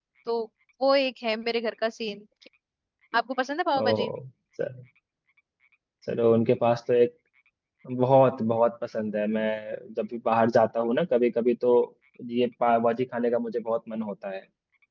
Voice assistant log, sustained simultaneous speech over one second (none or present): none